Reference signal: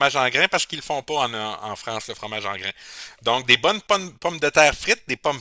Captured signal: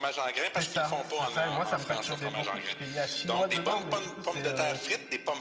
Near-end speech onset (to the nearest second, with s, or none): 1 s